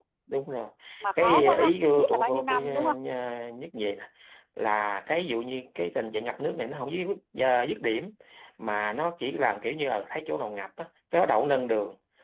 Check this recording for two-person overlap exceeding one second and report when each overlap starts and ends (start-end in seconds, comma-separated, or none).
1.2-3.0